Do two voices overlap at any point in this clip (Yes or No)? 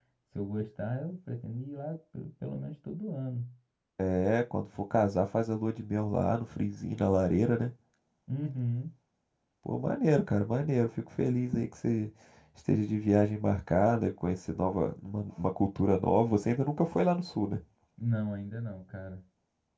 No